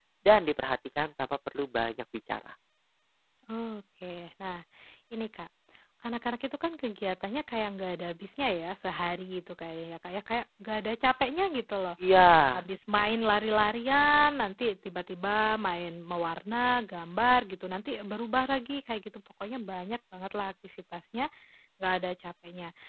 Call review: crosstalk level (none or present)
none